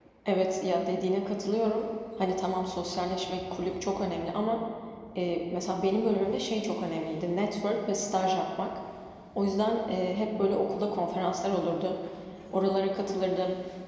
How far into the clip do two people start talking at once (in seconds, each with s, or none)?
none